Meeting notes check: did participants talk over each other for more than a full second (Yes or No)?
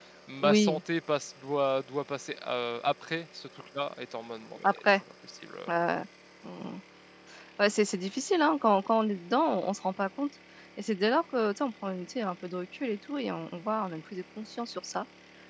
No